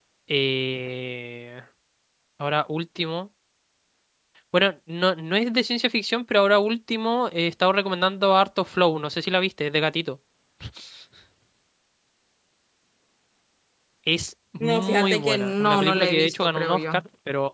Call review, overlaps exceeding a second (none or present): present